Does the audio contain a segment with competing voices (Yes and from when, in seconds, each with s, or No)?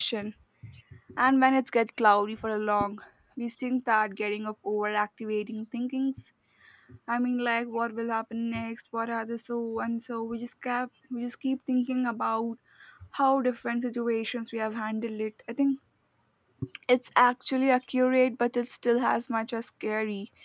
No